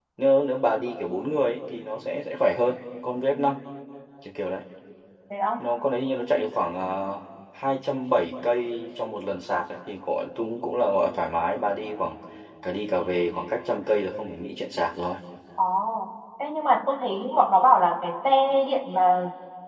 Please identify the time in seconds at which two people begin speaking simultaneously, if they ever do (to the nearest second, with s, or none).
none